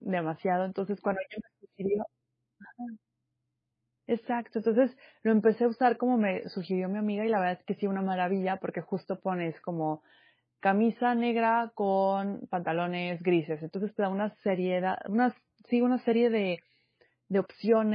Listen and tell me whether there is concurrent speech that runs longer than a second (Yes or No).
No